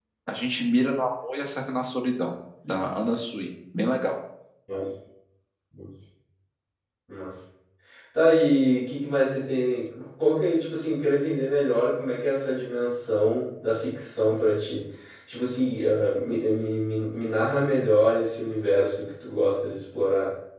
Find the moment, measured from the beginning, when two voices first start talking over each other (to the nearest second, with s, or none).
none